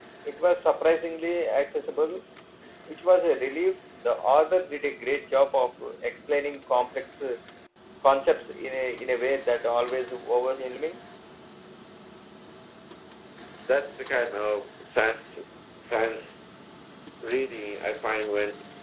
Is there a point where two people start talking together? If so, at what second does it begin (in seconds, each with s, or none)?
none